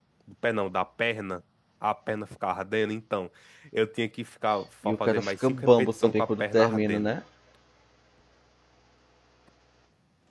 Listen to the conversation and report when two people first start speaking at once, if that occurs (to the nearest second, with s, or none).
5 s